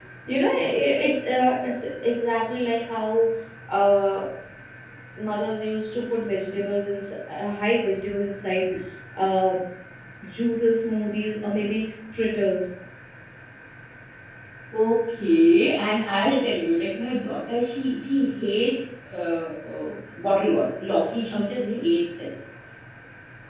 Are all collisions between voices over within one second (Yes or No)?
Yes